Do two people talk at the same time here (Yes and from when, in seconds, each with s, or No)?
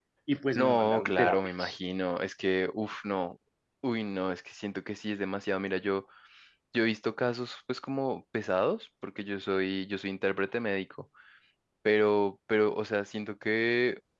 Yes, from 0.5 s